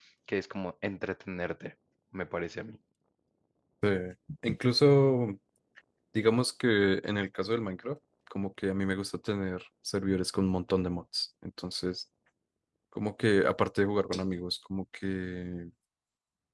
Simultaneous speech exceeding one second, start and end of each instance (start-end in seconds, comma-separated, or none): none